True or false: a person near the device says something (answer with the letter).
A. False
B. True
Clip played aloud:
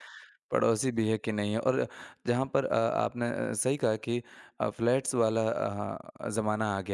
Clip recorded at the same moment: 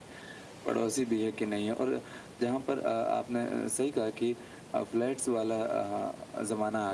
A